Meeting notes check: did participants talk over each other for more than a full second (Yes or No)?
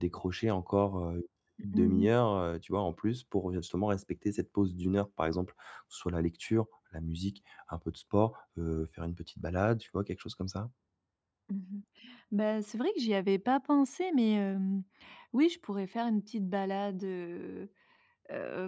No